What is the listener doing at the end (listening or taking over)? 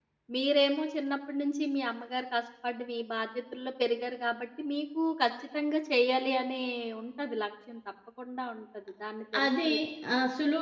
taking over